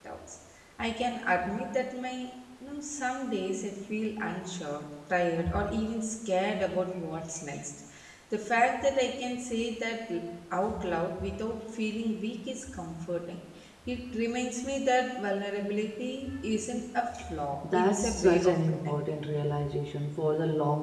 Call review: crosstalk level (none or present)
present